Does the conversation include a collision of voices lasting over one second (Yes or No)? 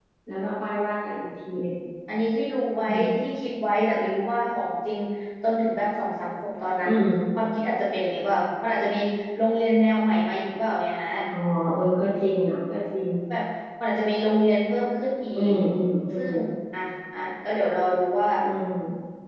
No